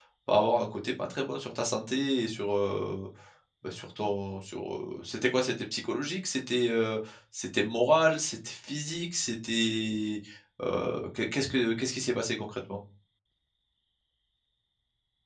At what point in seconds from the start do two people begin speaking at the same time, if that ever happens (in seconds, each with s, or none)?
none